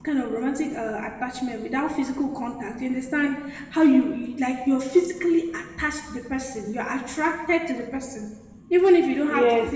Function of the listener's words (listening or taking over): taking over